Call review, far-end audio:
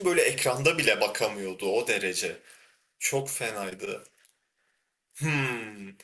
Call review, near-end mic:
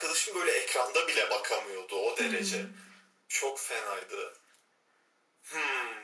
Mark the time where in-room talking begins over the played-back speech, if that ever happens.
2.2 s

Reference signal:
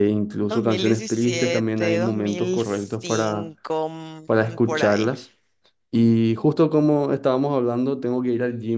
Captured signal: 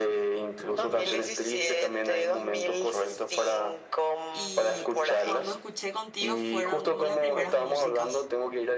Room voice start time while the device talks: 4.3 s

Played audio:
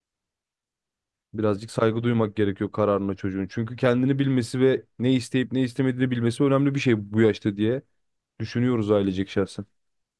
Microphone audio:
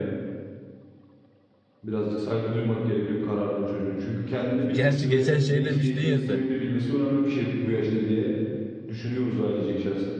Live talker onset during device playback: 4.7 s

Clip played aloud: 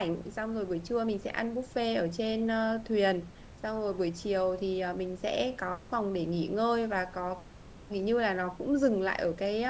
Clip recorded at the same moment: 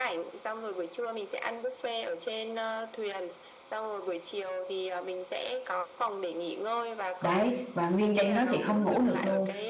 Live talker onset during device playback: 7.2 s

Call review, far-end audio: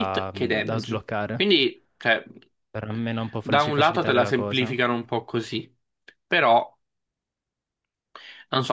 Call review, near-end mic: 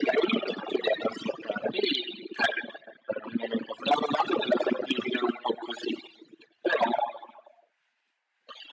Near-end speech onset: none

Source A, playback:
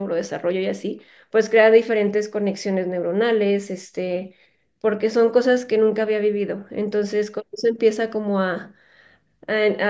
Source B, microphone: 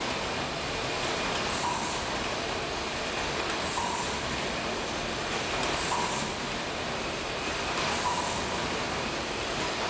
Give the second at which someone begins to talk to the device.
none

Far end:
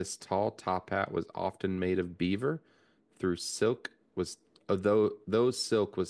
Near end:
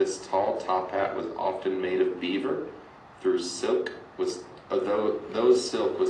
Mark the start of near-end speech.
none

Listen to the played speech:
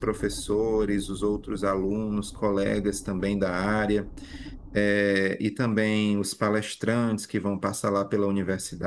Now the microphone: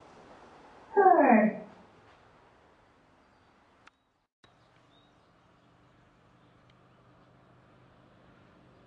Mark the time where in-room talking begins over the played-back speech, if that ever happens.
0.9 s

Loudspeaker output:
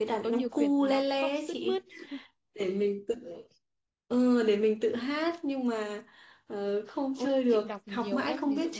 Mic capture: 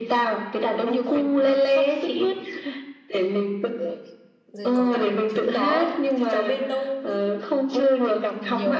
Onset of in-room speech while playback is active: 4.5 s

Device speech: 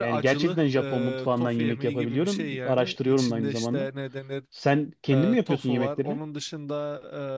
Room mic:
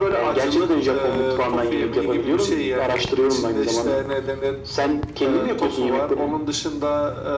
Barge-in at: none

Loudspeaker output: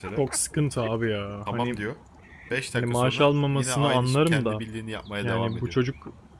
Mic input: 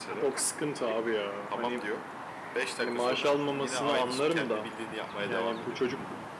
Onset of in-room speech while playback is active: none

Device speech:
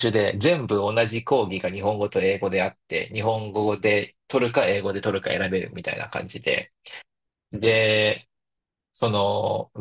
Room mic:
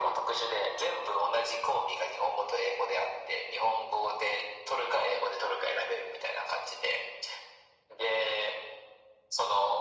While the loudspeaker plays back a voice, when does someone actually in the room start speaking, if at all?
none

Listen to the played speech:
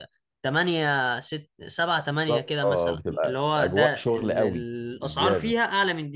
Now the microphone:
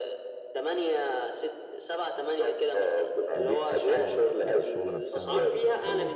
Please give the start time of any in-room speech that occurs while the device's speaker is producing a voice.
3.3 s

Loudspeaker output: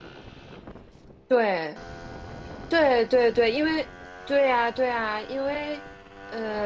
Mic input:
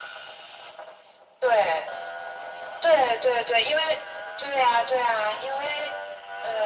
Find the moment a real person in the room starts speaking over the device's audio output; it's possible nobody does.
none

